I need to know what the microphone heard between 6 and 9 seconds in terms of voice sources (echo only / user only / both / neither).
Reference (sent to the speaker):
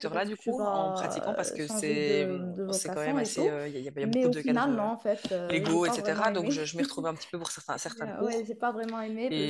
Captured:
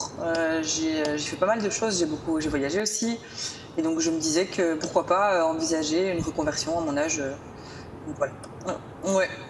user only